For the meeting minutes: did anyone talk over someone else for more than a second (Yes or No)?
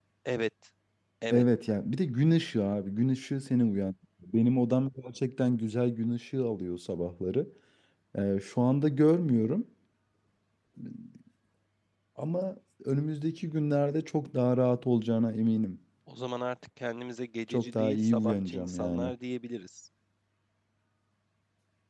Yes